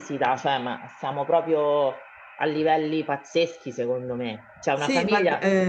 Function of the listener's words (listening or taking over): taking over